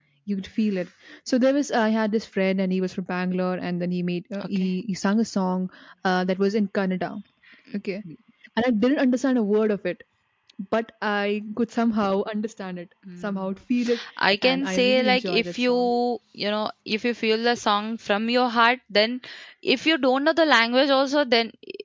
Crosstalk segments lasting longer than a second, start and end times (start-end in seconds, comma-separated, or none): 14.4-15.9